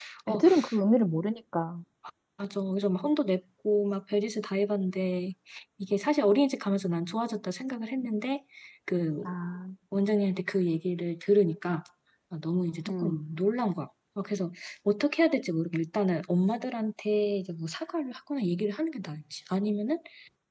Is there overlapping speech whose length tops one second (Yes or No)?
No